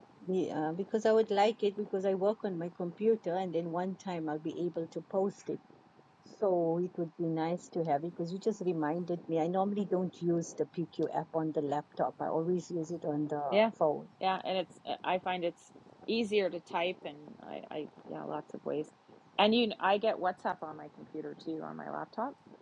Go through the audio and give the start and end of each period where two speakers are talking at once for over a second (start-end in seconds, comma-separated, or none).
none